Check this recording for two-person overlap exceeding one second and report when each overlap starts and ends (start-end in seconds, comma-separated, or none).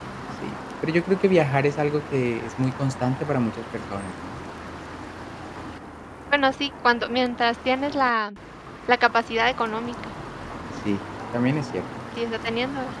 none